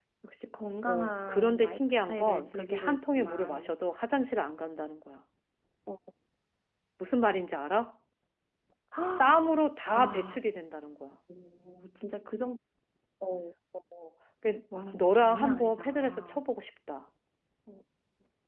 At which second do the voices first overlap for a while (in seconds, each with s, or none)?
0.8 s